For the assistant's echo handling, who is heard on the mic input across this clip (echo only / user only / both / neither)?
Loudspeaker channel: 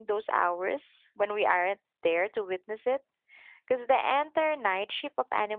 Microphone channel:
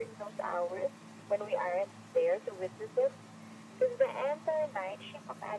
echo only